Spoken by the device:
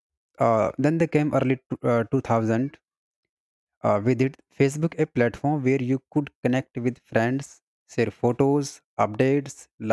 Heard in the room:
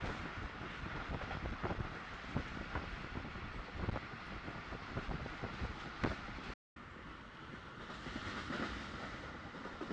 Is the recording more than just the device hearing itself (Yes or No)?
No